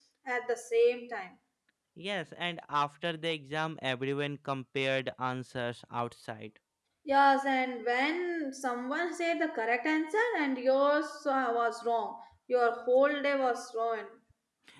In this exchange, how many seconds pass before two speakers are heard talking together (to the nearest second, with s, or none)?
none